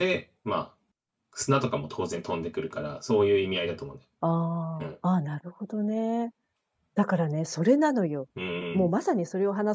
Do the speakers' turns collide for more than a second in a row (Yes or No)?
No